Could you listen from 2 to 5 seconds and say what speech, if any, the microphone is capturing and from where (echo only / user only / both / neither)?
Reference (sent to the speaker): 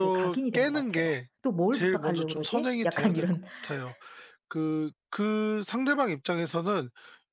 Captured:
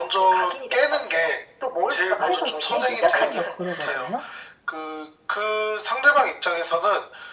both